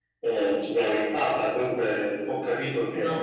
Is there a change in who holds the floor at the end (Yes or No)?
No